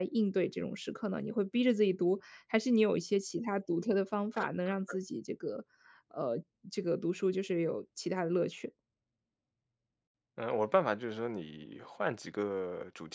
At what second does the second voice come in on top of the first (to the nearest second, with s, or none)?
none